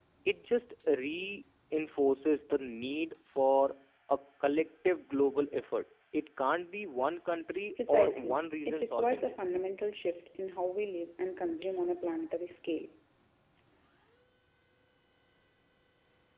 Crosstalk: present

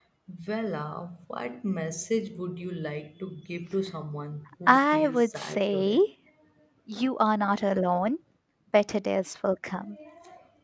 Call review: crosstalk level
present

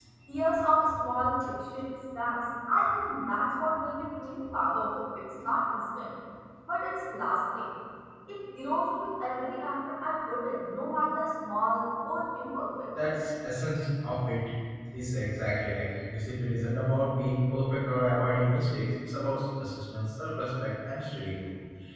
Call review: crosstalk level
none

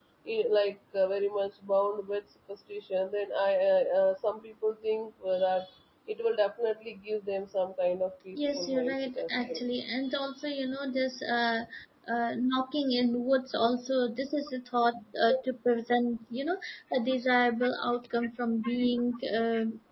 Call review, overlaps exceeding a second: present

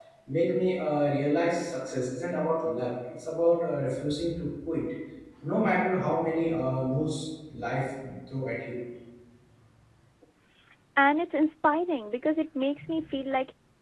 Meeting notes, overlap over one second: none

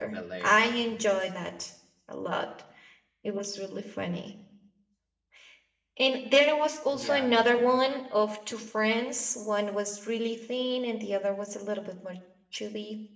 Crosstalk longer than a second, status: present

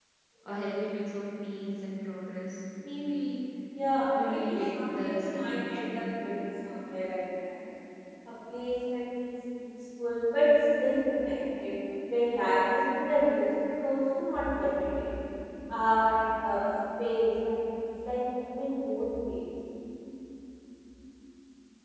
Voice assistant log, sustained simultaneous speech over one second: present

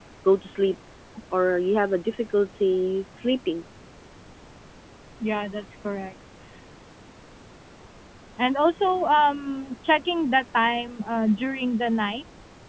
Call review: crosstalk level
none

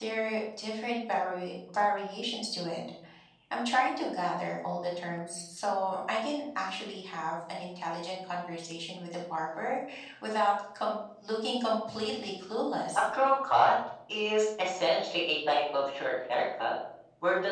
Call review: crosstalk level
none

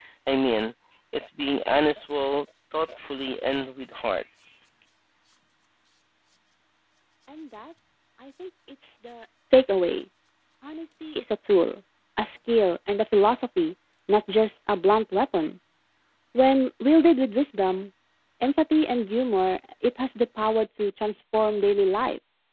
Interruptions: none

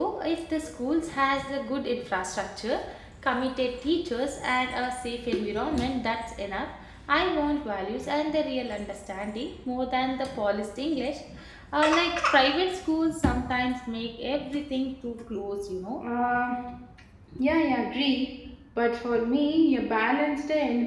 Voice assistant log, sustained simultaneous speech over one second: none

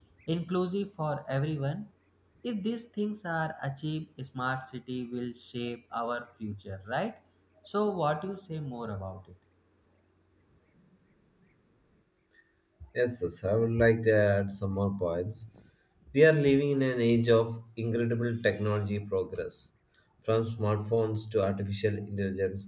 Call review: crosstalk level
none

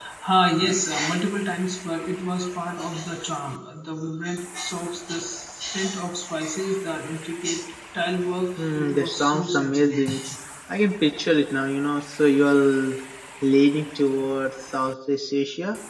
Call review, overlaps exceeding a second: present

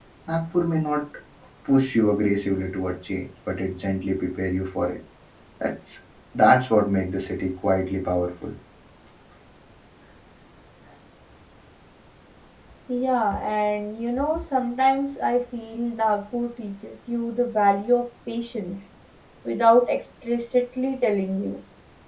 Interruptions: none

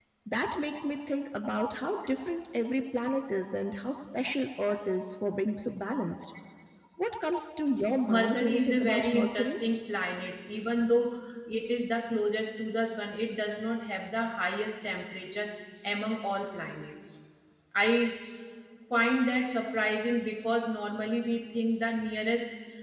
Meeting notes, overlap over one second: present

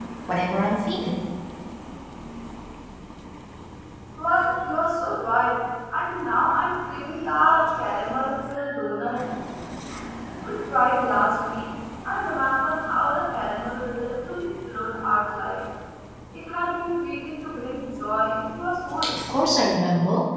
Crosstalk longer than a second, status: none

